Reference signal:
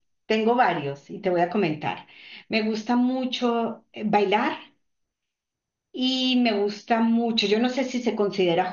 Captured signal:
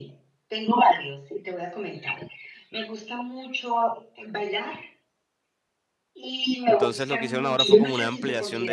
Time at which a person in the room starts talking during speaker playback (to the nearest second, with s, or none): 7 s